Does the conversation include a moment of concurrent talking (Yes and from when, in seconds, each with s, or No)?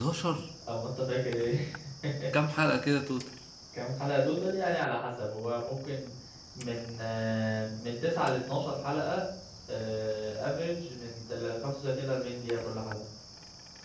No